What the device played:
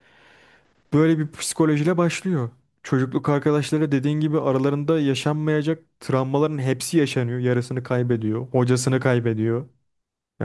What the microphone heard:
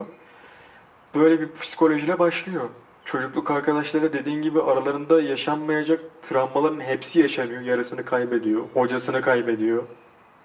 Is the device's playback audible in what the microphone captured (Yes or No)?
Yes